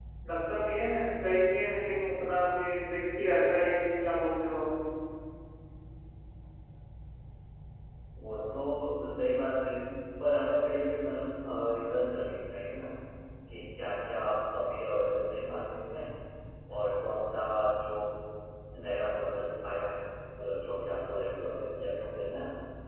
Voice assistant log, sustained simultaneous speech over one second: none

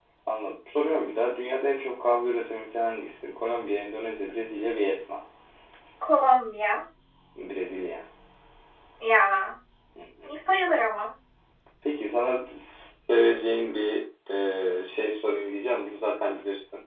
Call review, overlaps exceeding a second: none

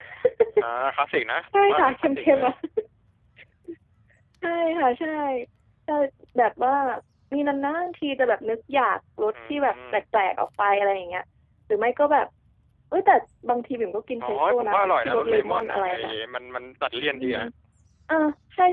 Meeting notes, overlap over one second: present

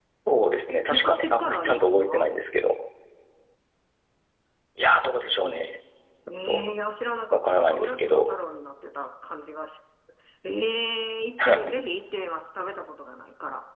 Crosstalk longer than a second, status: present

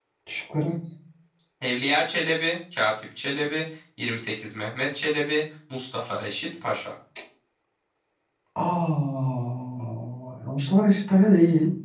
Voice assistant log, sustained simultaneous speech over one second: none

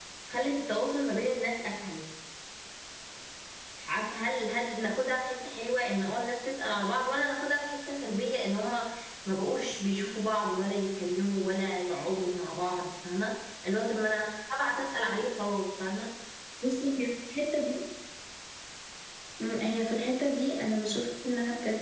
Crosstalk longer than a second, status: none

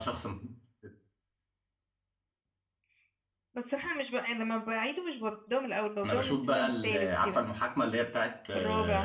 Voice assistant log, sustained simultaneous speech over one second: present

